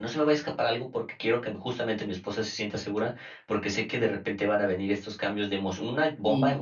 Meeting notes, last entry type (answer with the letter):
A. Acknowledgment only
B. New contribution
A